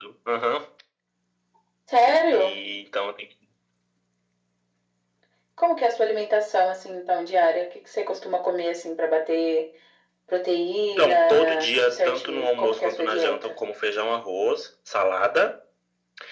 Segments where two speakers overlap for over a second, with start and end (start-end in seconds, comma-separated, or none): 10.9-13.6